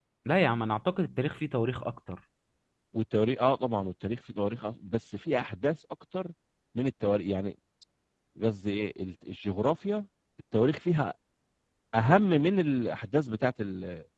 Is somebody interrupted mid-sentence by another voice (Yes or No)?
No